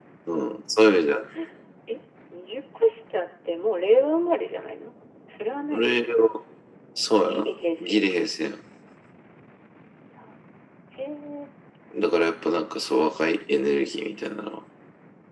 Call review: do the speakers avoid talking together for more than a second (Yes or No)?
Yes